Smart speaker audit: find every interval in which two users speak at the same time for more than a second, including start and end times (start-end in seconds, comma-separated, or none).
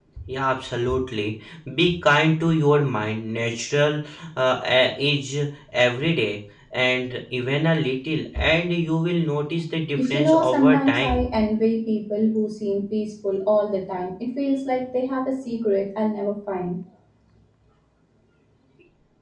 10.0-11.3